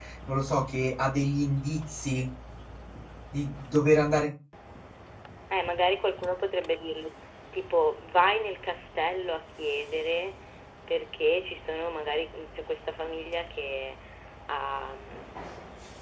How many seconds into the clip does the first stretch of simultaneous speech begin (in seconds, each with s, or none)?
none